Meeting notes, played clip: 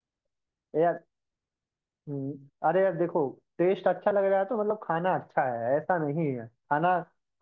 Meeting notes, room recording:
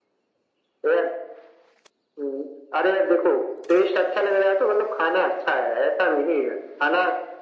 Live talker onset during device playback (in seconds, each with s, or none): none